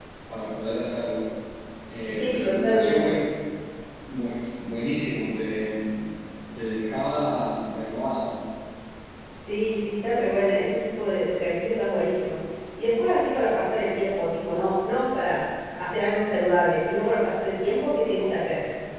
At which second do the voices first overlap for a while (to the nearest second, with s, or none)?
2 s